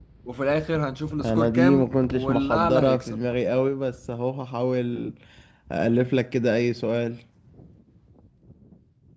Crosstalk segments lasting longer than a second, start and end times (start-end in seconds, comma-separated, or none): 1.2-3.2